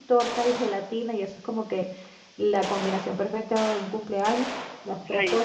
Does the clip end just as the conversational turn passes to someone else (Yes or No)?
No